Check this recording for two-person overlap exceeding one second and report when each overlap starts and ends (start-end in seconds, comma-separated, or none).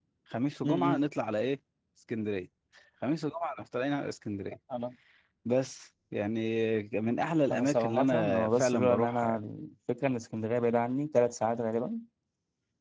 7.5-9.4